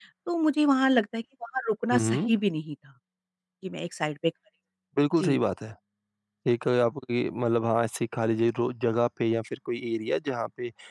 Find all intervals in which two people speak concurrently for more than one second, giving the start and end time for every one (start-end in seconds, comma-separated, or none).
none